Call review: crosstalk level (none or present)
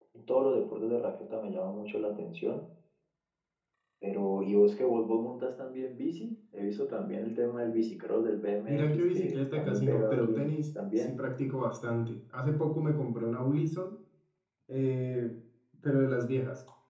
present